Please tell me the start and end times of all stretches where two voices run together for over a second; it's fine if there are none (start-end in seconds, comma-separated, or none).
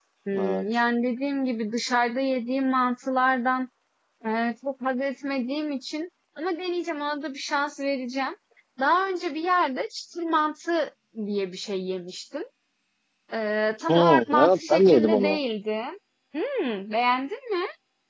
13.9-15.4